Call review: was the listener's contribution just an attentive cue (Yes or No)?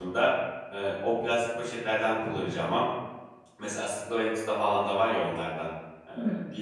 Yes